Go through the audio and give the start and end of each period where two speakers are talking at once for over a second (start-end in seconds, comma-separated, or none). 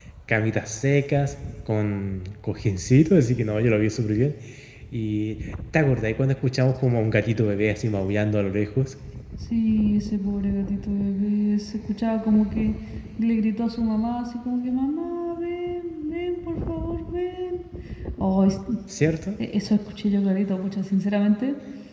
none